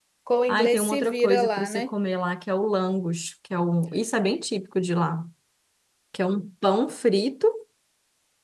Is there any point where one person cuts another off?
Yes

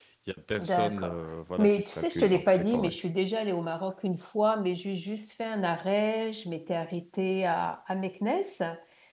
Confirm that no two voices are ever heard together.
No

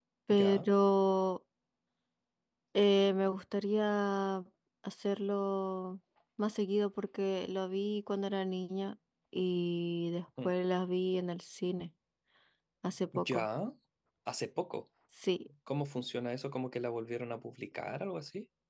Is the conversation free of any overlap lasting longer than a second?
Yes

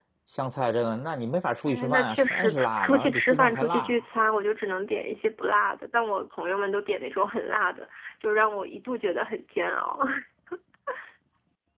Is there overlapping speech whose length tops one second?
Yes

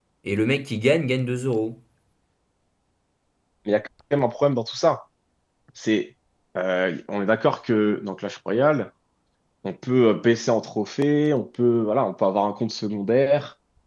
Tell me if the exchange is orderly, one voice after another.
Yes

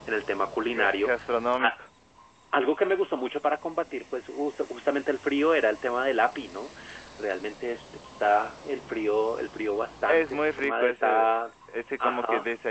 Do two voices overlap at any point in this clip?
Yes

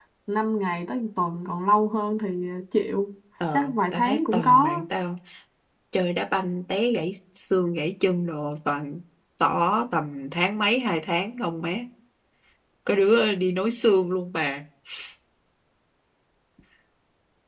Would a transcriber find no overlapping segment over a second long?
No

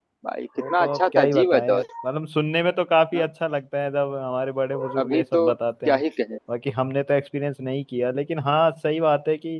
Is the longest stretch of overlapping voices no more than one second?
No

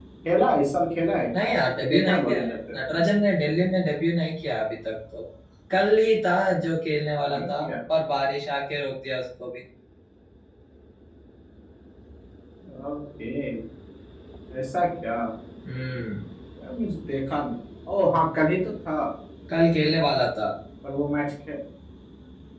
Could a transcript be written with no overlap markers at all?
No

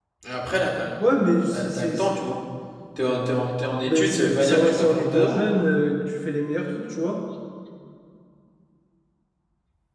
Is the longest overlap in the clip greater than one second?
Yes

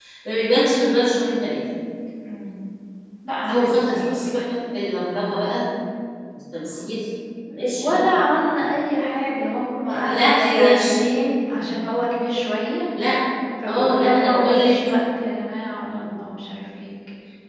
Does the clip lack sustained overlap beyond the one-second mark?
No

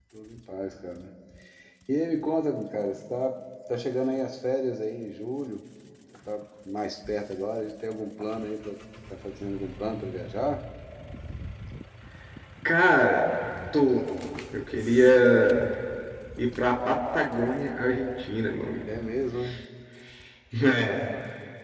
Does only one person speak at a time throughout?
Yes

